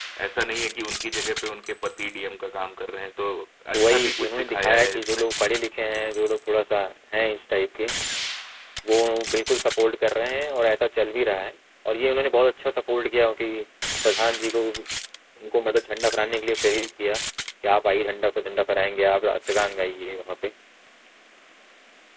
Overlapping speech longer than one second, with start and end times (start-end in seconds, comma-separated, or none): 3.7-5.3